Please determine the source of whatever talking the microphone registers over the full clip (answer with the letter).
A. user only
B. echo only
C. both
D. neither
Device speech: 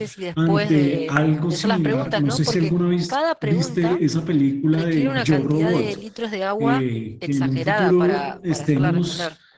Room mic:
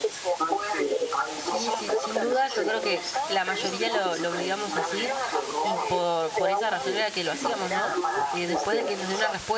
C